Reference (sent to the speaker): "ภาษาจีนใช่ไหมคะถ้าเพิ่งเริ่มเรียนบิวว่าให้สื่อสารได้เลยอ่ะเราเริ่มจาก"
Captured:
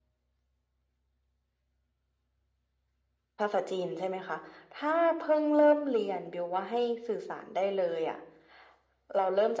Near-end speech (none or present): none